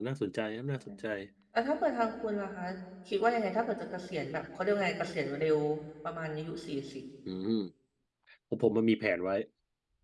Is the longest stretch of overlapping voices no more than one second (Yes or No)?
Yes